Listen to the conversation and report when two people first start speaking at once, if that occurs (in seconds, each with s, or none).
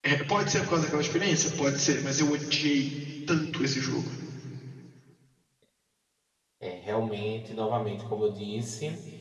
none